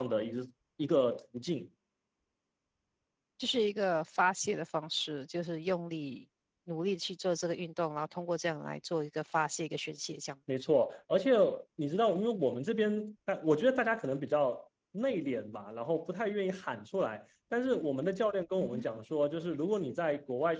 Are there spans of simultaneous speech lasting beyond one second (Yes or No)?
No